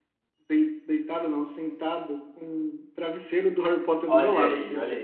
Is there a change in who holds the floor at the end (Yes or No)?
Yes